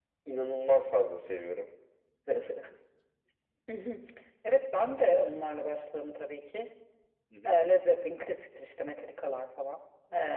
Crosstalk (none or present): none